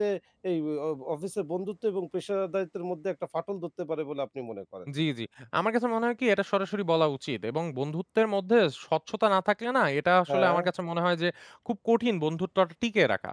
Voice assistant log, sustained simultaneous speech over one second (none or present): none